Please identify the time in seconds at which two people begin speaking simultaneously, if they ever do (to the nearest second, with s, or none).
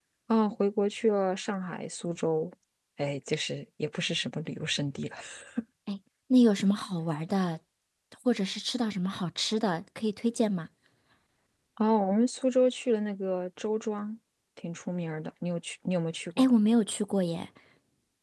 none